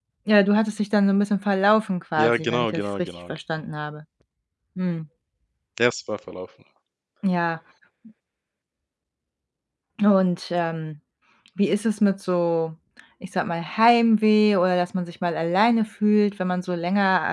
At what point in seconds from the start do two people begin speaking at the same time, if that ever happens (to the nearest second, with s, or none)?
2 s